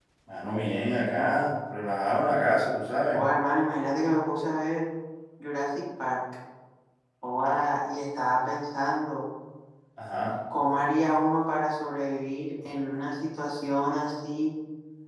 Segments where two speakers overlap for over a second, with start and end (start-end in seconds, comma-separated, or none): none